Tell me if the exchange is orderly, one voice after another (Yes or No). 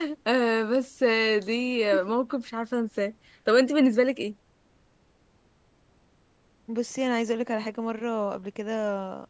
Yes